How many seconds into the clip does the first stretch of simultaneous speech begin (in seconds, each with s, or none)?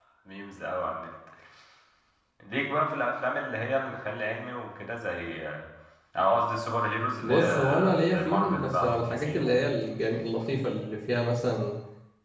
7.2 s